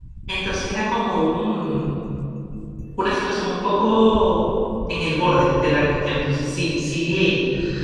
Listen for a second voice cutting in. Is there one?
No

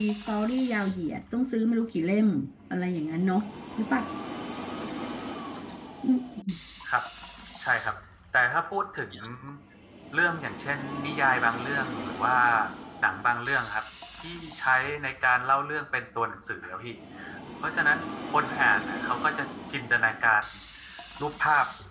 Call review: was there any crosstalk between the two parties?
No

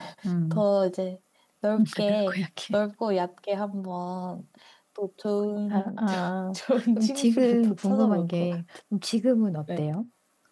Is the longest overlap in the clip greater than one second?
Yes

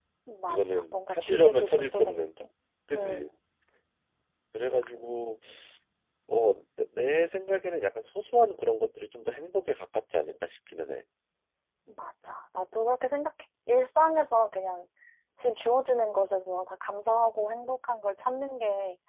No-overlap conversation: No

